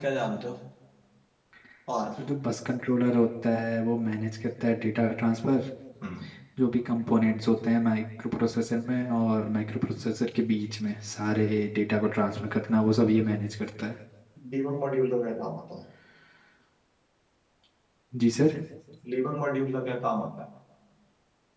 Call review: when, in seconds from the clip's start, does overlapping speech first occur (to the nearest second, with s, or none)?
none